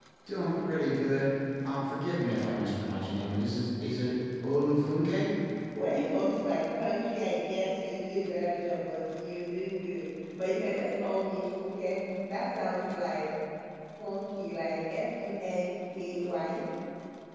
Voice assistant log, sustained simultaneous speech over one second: none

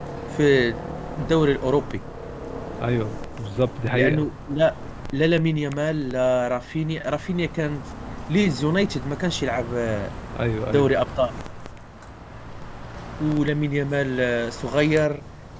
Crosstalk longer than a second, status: none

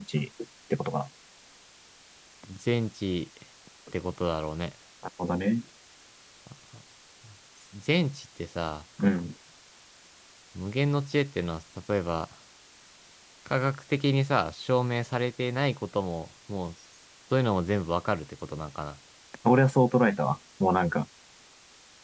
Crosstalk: none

